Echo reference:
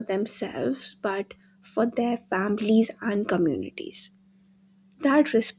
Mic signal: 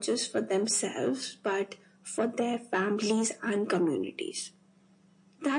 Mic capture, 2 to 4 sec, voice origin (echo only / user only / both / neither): echo only